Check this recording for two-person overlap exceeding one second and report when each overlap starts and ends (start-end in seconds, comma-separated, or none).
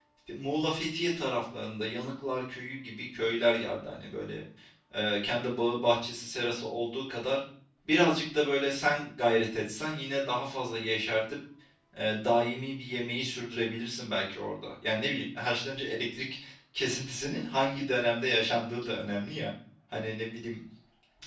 none